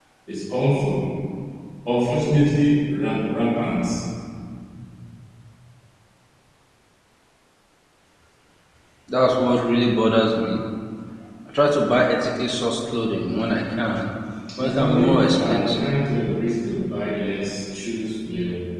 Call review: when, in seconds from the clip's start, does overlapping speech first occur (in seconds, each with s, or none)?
14.6 s